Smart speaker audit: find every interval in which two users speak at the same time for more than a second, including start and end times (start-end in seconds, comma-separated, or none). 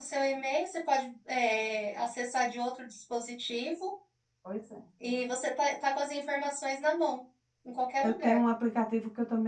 none